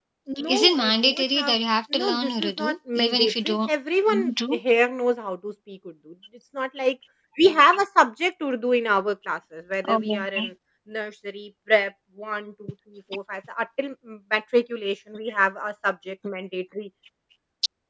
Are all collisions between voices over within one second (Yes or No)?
No